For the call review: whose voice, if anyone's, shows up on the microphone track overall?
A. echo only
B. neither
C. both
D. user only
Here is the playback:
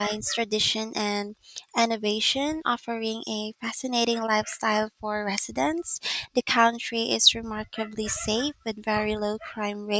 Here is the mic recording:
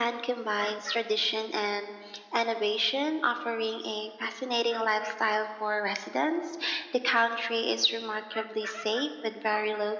A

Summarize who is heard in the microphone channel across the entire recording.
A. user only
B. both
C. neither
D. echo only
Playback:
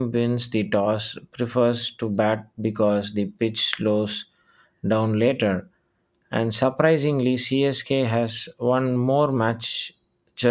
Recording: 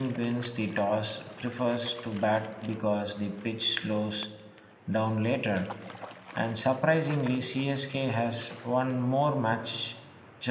D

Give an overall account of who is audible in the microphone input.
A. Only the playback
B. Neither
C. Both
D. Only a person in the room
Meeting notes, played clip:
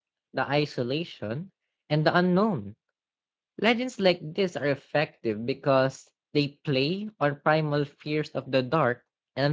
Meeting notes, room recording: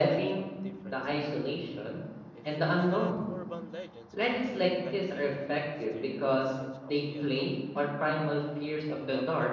C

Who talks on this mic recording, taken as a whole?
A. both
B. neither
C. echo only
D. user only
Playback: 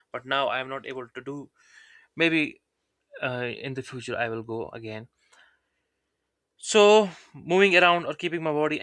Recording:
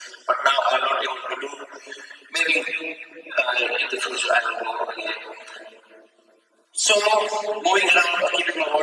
C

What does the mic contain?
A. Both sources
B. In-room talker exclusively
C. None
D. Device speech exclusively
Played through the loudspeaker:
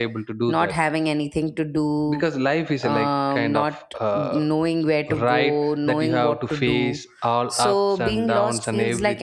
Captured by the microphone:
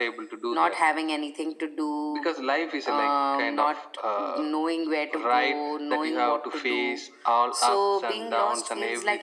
D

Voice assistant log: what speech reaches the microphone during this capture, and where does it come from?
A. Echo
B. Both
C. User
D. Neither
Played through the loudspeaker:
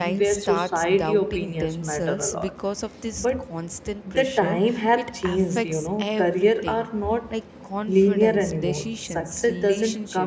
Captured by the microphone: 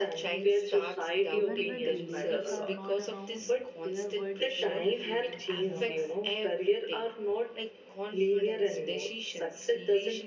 B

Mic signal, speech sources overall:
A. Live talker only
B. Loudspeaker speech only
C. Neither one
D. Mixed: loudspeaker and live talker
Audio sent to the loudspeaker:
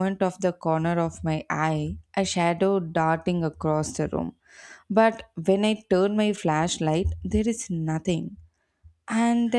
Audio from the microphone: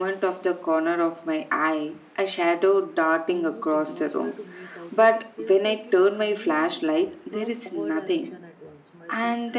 D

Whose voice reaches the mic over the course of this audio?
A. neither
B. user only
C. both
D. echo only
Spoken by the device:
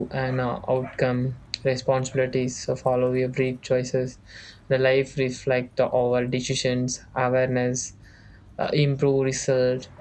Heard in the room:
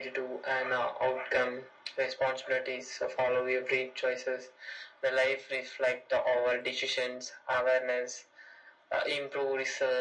D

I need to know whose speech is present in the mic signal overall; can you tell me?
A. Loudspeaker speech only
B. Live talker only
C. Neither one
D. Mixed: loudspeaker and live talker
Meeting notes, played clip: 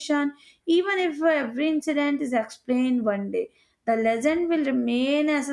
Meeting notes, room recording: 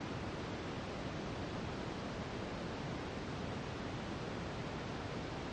C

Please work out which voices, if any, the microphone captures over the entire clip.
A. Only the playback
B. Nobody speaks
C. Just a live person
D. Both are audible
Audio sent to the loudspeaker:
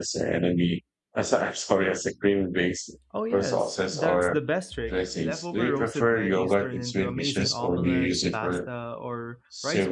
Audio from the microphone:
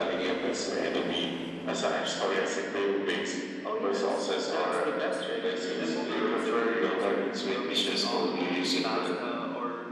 A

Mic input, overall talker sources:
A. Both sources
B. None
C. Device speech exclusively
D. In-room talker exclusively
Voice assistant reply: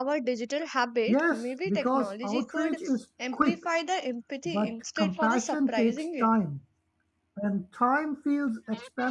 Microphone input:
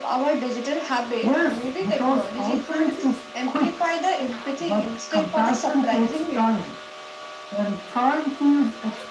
C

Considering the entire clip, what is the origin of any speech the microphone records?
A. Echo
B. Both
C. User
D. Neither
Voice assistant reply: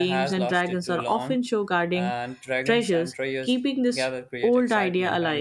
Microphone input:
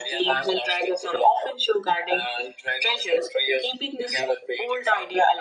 A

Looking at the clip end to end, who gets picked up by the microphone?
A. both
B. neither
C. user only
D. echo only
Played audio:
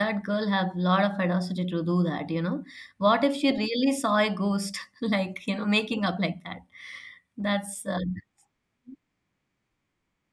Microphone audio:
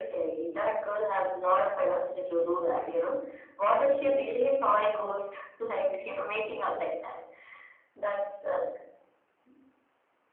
D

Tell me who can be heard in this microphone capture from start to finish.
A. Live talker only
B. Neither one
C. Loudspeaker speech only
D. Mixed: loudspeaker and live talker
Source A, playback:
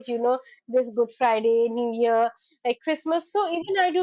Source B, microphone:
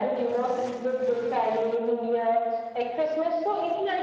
C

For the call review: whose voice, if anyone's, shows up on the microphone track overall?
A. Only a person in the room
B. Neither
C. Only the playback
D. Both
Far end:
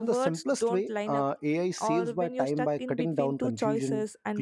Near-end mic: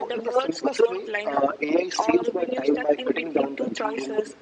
C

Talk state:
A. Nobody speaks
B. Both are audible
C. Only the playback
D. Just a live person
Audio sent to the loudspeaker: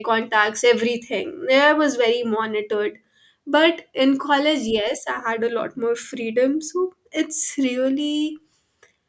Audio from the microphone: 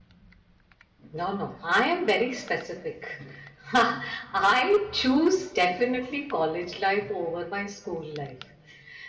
D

